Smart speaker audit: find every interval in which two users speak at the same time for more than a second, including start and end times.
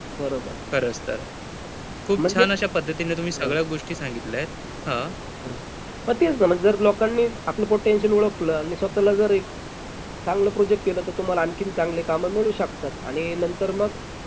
none

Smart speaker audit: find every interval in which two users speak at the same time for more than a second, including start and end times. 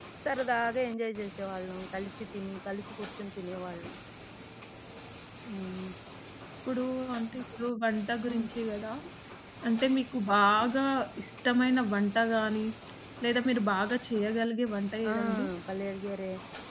none

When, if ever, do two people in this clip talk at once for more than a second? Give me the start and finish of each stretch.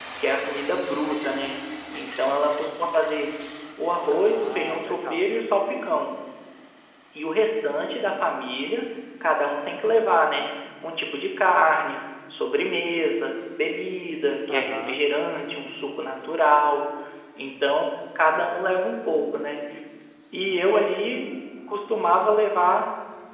4.1-5.3

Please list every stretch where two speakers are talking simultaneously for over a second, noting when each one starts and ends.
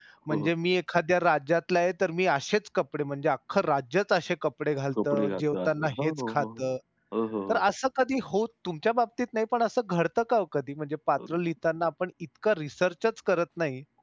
5.0-6.6

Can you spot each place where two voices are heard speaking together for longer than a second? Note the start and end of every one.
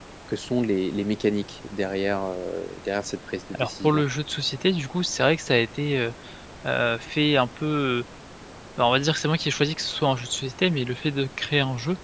none

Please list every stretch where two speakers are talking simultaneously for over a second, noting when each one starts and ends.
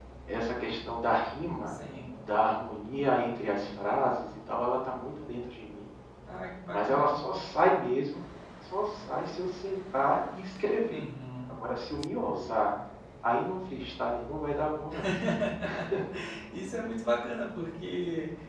none

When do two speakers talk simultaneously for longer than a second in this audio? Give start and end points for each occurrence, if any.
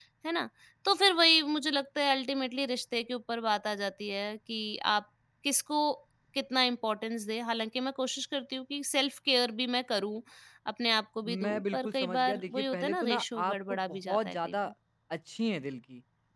11.2-14.5

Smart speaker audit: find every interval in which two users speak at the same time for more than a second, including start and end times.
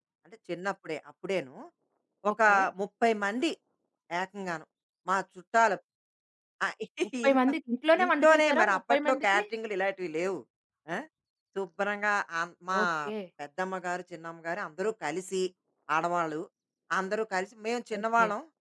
8.0-9.4

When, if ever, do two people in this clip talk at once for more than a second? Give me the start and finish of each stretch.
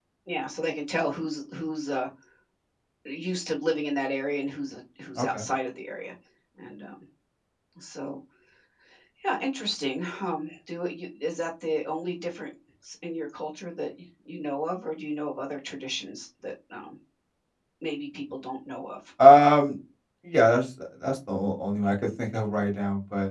none

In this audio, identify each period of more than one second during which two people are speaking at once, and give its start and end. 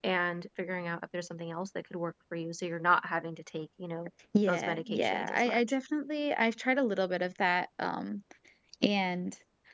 4.5-5.8

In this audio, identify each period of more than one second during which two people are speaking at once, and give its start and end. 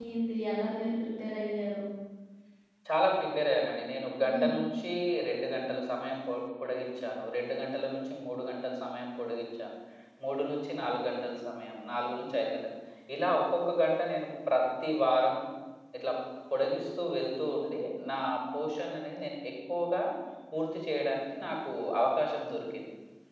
none

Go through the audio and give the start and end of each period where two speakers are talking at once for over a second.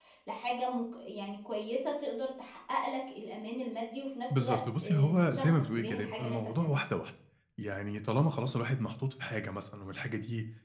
4.4-6.8

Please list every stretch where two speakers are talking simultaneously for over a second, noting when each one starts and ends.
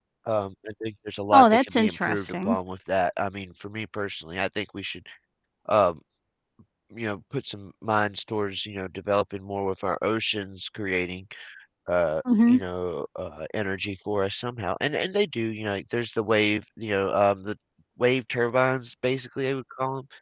1.3-2.6

